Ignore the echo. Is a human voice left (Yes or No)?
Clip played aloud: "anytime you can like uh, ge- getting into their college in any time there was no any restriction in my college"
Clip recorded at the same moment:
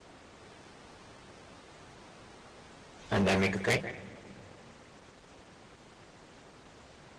Yes